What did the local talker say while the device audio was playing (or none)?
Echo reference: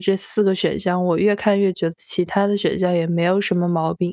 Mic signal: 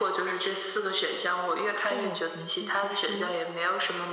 这种情绪其实，